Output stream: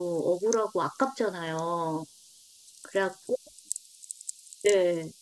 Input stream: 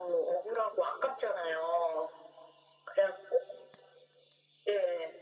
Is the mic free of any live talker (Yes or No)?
Yes